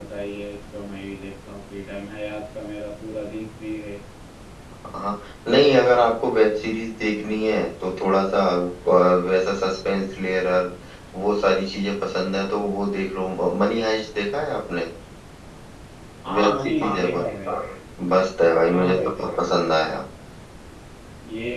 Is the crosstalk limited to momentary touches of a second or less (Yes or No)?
No